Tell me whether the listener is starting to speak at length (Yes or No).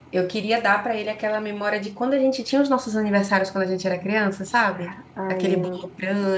No